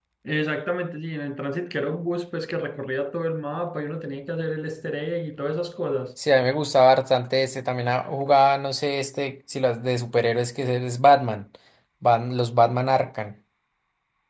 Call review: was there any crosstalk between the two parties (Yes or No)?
No